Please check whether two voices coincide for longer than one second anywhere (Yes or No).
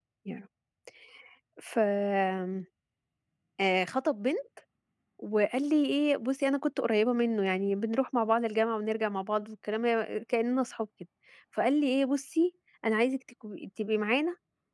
No